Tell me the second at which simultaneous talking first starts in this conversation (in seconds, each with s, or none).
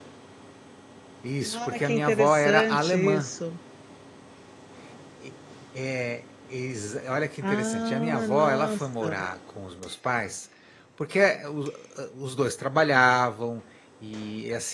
1.5 s